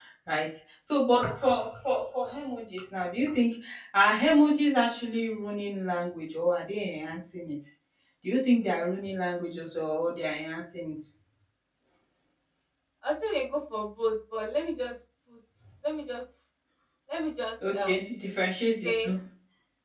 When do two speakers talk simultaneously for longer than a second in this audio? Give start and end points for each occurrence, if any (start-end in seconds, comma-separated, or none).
none